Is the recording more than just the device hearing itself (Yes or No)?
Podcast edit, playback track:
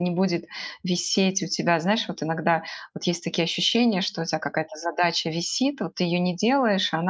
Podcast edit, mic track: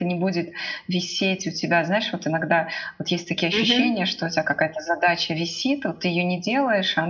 Yes